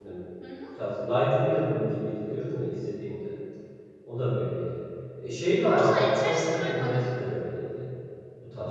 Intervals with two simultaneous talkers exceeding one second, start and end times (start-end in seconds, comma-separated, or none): 5.6-7.0